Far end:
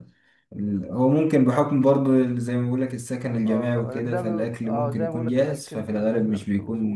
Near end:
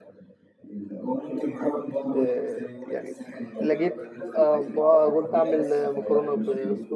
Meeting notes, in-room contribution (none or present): present